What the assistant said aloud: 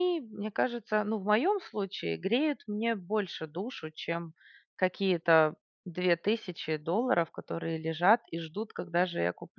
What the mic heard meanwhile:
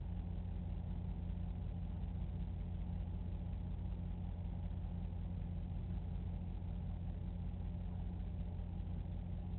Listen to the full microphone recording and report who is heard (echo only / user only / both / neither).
neither